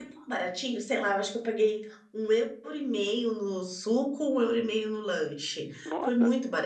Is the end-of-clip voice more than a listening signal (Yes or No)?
No